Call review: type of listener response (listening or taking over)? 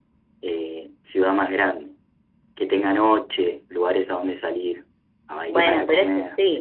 taking over